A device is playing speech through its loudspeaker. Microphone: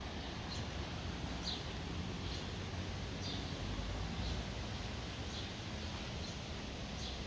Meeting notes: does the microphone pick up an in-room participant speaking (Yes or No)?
No